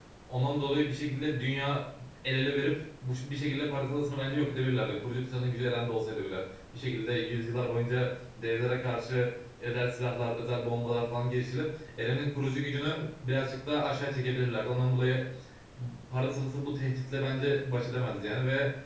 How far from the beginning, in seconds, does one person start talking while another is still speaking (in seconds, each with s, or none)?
none